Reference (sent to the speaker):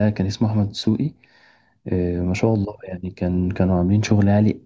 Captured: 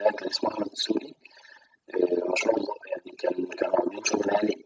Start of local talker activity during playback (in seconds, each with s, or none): none